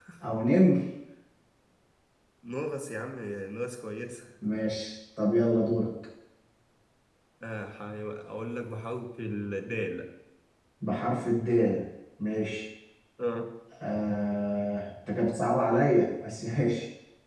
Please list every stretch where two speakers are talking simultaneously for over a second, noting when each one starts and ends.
none

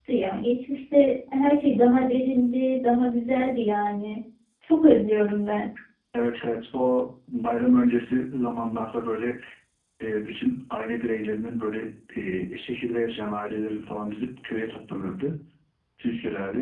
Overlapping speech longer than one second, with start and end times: none

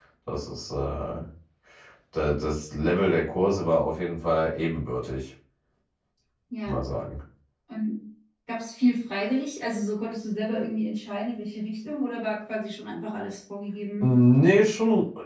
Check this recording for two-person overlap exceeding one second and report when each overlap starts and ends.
none

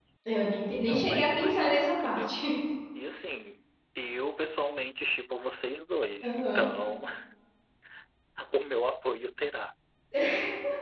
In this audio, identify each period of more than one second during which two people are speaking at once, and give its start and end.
0.9-2.4

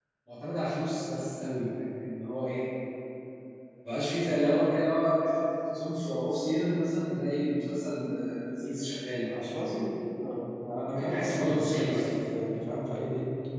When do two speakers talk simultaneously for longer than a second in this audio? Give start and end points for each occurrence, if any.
10.9-12.1

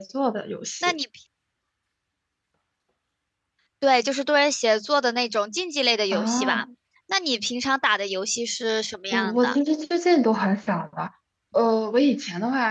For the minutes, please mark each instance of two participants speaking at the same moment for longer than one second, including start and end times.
none

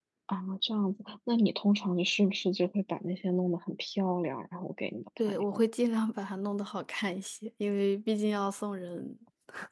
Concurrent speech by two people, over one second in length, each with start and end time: none

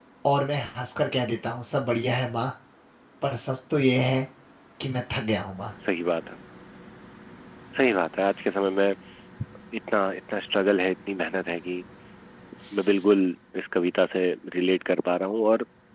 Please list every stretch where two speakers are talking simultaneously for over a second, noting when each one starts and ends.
none

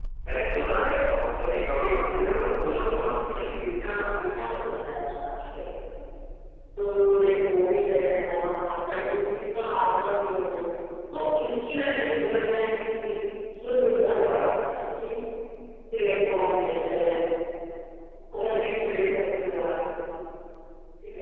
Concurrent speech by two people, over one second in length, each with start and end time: 1.7-3.6

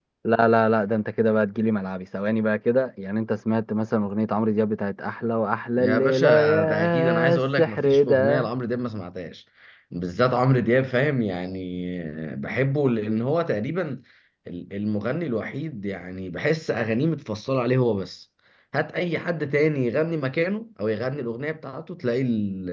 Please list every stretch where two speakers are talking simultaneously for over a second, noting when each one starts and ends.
5.8-8.5

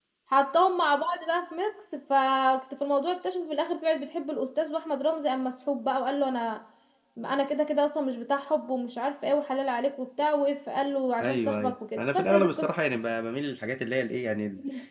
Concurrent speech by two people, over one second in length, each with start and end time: 11.2-12.7

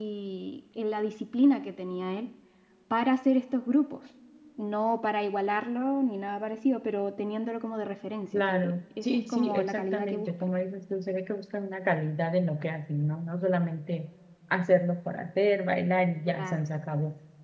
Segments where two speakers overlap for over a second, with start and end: 8.5-10.3

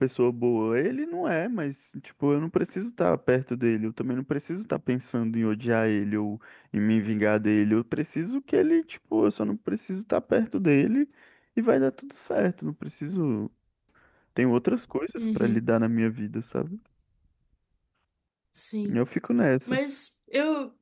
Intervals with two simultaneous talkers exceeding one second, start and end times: none

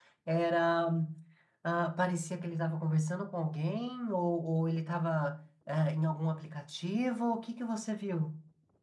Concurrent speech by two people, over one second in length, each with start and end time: none

